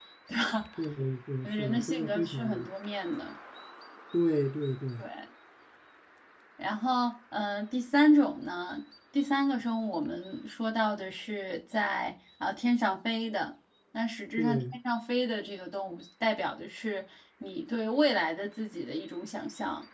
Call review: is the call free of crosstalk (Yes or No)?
No